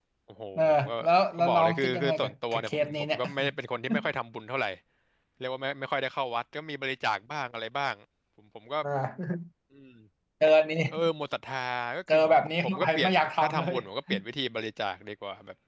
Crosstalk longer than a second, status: present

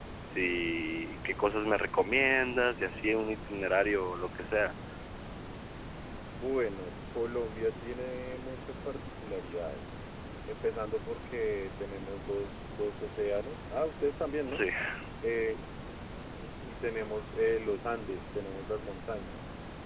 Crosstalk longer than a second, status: none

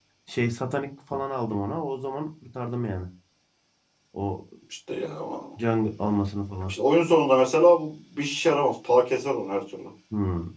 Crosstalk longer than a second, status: none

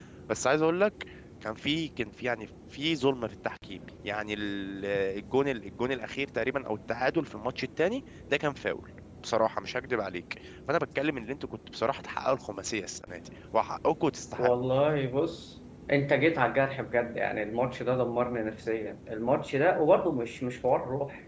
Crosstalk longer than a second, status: none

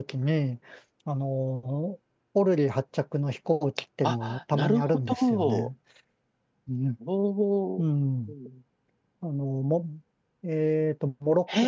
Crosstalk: present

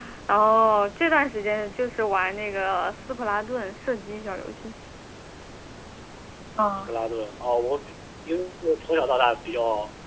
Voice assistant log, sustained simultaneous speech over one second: none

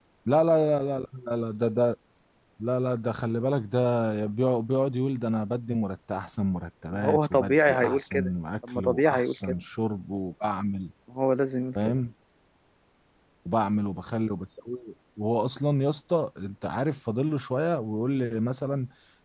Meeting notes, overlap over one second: present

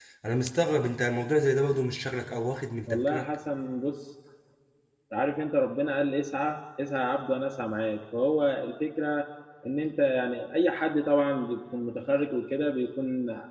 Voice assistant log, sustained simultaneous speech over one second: none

